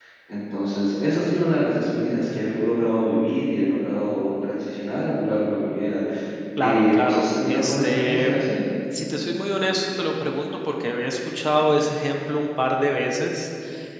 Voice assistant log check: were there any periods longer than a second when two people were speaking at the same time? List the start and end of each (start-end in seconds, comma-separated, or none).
6.6-8.3